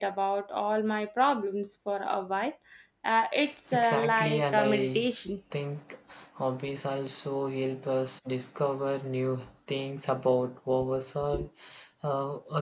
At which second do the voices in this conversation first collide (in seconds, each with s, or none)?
3.7 s